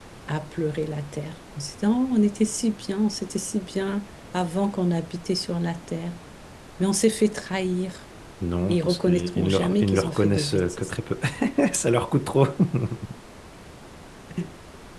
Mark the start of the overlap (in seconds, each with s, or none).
8.7 s